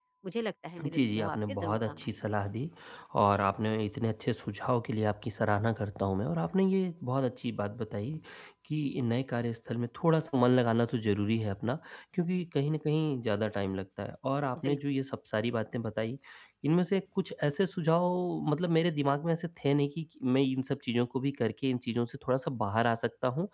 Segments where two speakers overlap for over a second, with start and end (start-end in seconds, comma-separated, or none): 0.8-2.1